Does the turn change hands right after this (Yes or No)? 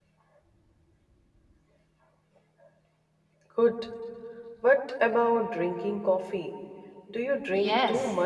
Yes